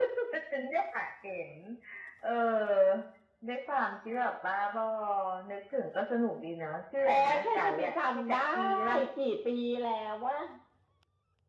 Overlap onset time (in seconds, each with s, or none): 7.0 s